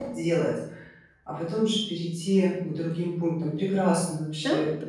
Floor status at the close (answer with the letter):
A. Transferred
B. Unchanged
A